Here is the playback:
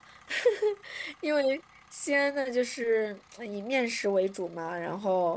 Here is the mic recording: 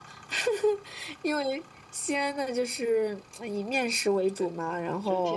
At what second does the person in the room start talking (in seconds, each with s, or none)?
4.3 s